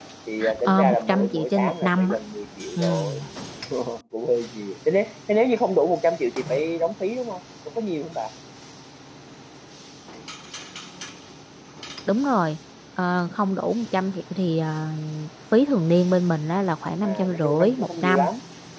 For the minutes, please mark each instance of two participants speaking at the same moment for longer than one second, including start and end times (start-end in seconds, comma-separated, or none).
0.6-2.2, 17.0-18.3